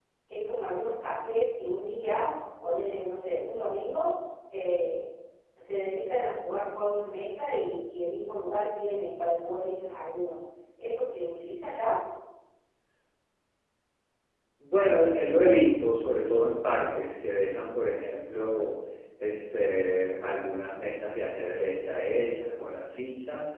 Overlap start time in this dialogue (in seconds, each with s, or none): none